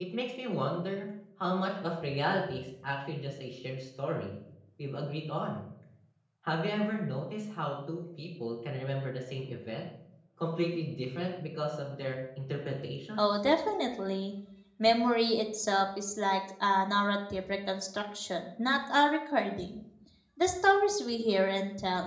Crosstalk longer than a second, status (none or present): none